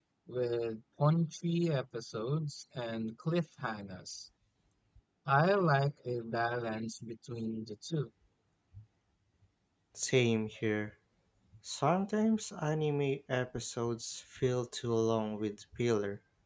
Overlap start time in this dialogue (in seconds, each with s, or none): none